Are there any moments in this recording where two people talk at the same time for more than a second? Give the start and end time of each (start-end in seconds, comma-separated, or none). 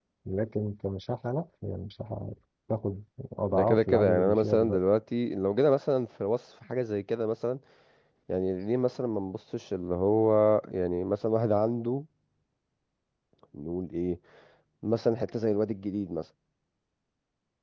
3.5-4.8